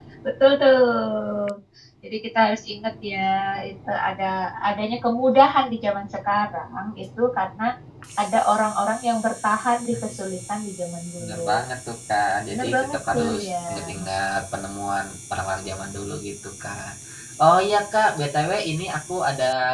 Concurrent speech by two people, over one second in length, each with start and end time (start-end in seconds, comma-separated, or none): 12.5-14.0